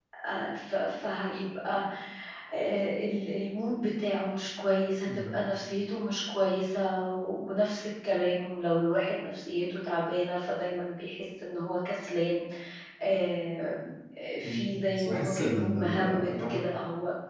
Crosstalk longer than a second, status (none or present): present